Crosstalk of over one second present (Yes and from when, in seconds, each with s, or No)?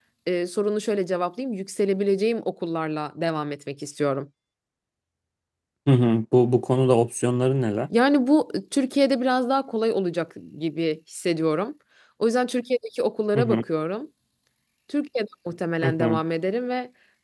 No